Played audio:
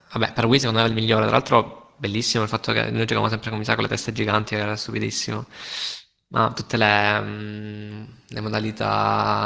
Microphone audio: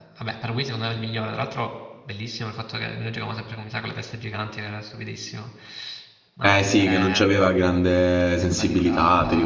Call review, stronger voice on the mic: user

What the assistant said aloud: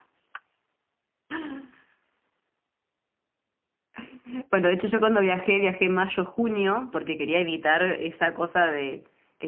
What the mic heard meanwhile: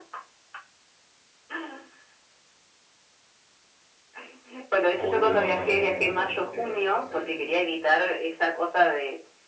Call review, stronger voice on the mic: echo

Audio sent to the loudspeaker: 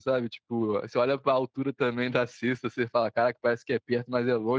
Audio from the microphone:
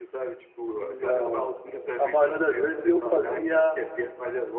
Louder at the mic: user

